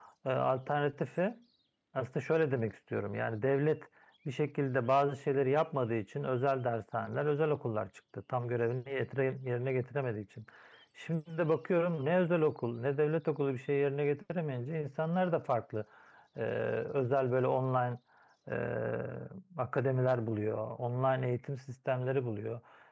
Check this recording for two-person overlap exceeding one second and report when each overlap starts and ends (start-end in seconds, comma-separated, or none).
none